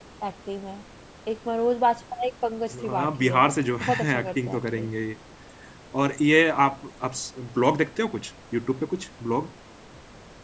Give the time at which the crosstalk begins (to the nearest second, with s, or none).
3 s